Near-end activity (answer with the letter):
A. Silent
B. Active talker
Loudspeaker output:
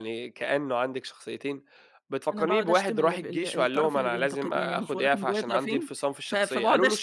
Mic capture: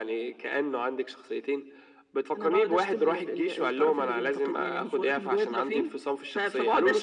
A